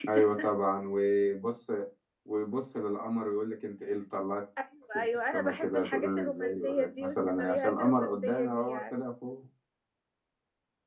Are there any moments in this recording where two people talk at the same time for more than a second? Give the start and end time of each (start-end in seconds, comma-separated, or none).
5.0-8.9